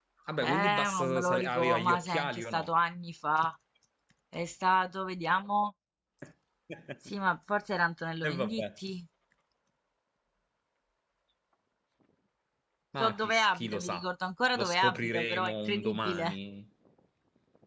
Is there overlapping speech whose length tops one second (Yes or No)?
Yes